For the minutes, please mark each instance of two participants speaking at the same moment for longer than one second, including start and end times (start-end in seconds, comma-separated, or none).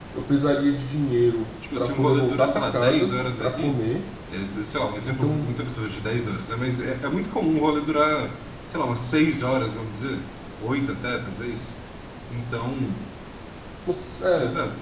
1.8-3.8